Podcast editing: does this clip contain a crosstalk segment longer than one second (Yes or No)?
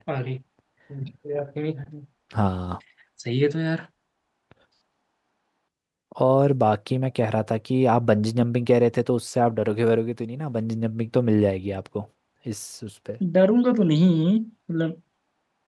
No